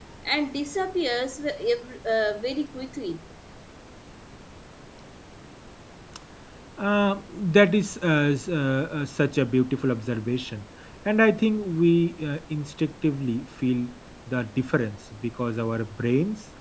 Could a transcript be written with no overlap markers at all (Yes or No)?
Yes